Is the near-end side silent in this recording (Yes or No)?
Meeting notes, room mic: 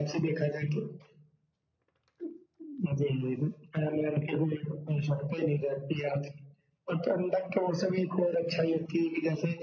Yes